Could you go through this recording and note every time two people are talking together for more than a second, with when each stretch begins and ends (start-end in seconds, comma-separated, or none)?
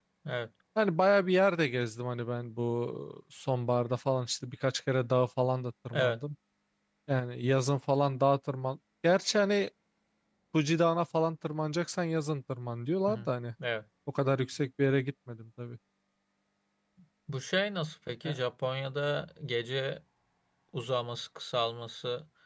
none